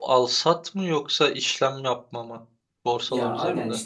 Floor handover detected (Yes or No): Yes